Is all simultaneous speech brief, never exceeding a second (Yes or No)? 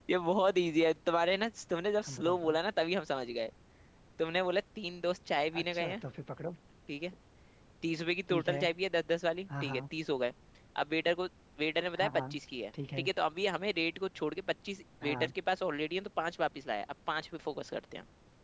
Yes